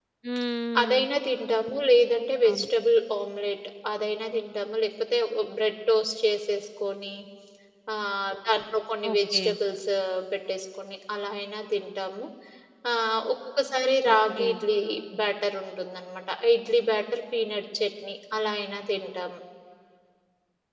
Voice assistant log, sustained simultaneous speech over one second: none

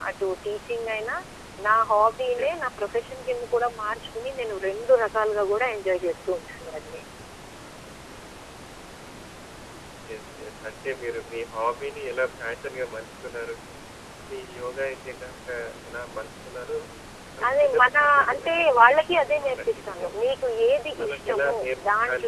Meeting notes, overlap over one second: present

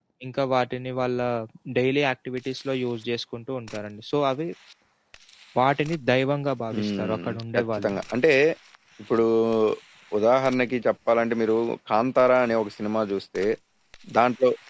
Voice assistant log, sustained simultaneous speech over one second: present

